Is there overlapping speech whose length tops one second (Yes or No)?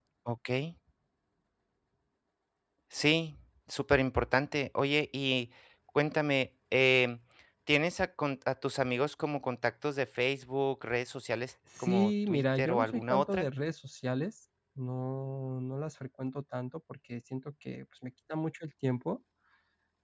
Yes